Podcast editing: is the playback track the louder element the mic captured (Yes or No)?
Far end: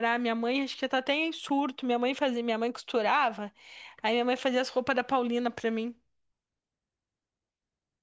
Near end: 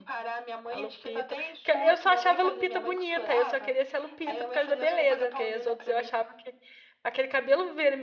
No